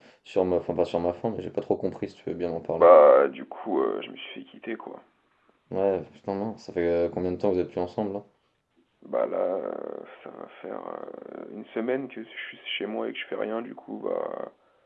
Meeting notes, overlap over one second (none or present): none